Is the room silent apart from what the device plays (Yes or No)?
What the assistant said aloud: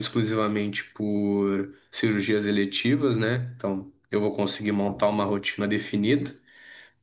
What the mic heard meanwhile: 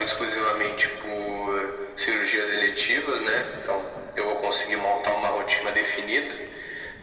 Yes